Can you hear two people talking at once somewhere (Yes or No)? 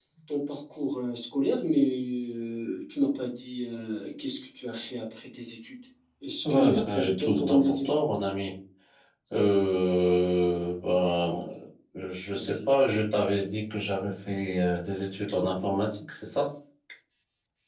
Yes